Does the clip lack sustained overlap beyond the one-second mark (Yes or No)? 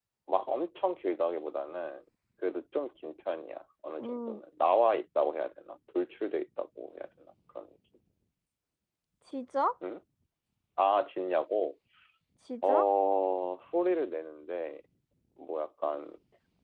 Yes